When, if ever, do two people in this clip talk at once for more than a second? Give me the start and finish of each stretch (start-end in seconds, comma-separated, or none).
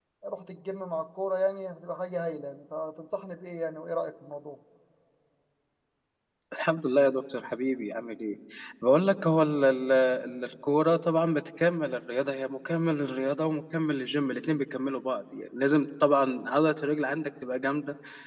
none